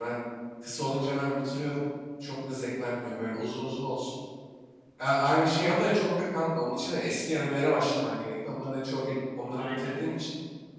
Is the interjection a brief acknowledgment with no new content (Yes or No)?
Yes